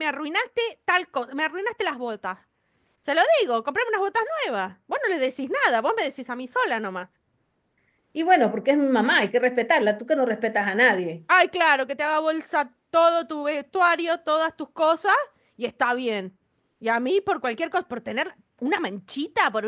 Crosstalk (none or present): none